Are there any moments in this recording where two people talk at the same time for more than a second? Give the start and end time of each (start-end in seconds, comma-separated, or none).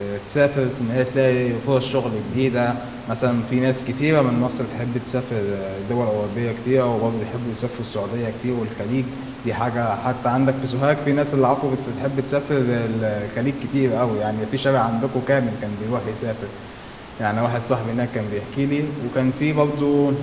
none